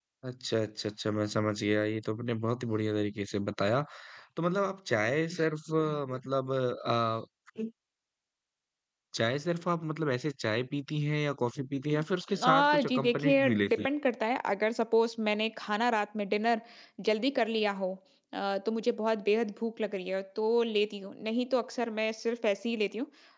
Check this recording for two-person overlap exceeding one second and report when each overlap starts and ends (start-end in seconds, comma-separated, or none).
12.4-13.9